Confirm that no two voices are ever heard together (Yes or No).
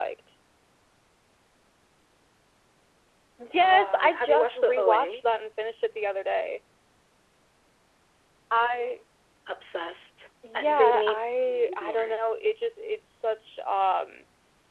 No